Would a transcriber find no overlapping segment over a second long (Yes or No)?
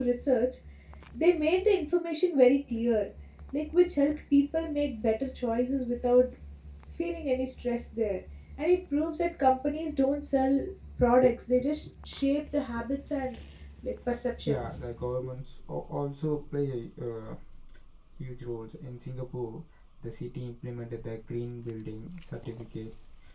Yes